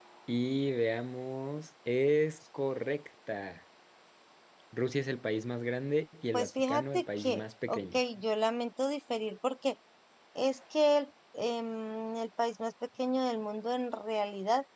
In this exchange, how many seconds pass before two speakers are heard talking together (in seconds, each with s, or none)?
6.3 s